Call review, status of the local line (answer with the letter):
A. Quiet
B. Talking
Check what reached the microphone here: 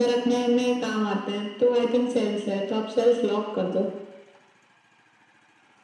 A